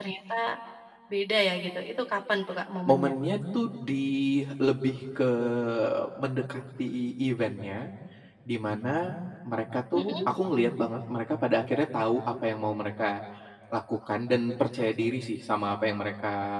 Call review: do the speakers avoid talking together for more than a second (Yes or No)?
Yes